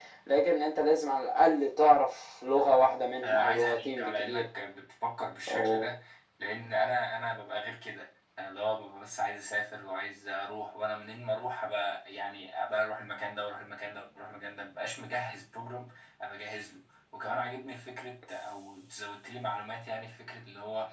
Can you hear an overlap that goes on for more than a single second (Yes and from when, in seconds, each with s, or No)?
Yes, from 3.2 s